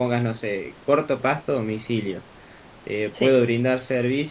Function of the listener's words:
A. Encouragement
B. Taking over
A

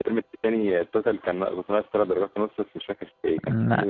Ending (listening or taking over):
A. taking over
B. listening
B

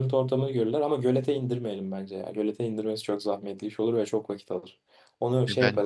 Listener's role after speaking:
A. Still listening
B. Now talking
A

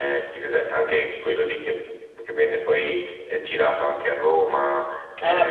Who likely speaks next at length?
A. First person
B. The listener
B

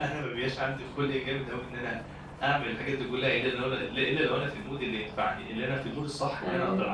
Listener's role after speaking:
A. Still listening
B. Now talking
A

